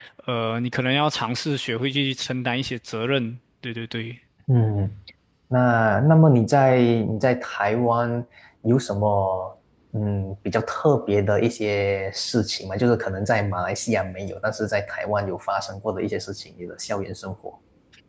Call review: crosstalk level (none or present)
none